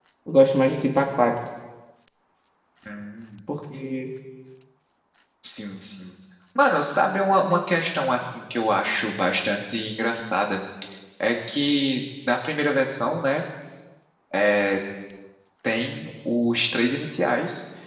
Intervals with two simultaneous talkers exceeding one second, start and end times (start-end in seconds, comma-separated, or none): none